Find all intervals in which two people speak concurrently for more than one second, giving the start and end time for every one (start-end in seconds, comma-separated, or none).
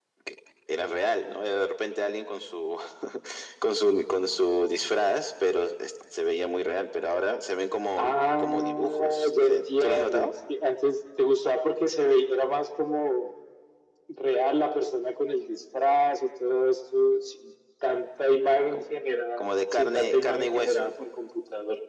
8.0-10.3, 19.4-20.9